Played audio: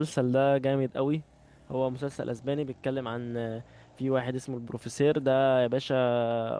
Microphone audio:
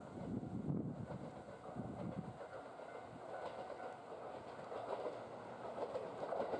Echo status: none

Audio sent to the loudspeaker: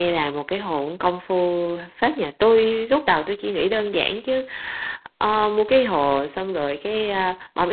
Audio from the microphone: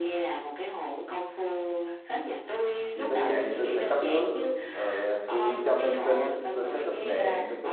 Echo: present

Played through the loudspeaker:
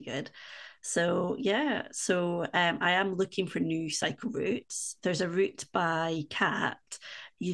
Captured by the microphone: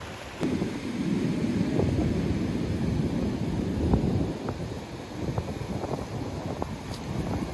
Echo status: none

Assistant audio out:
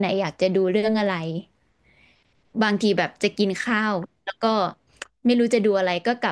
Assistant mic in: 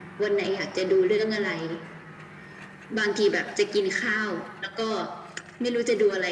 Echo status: present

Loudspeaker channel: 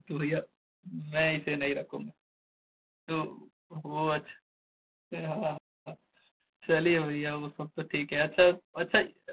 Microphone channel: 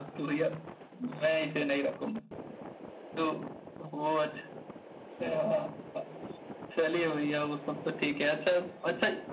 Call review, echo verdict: present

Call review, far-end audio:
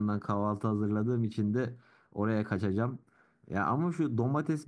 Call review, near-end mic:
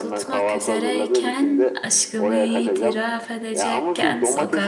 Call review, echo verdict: present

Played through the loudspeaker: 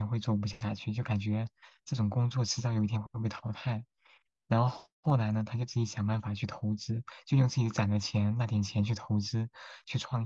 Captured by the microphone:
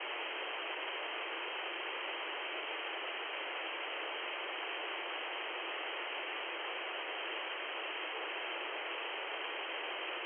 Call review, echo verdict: none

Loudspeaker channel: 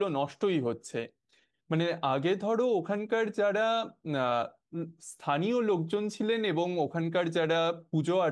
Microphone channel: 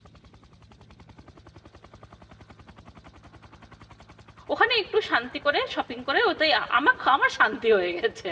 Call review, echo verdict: none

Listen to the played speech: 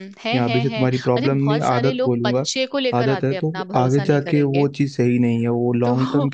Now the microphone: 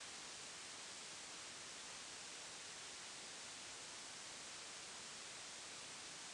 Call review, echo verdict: none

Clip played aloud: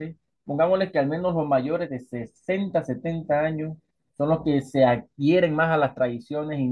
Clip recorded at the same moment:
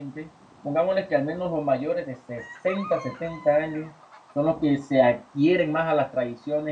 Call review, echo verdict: present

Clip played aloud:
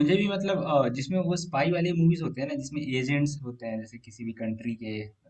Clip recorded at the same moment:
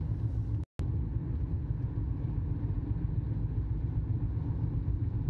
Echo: none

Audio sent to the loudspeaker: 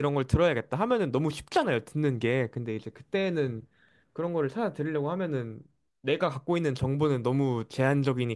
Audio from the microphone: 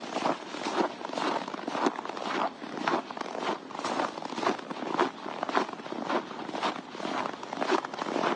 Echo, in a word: none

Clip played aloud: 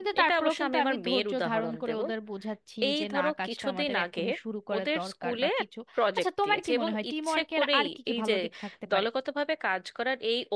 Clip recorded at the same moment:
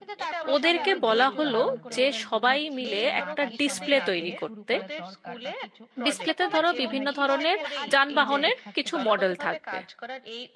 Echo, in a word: present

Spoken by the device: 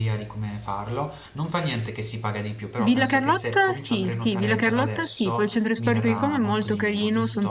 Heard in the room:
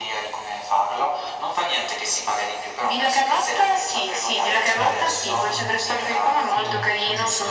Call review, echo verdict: present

